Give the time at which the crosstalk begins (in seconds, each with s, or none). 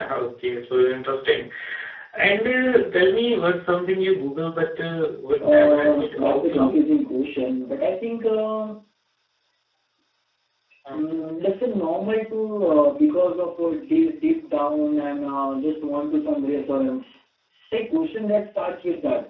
5.4 s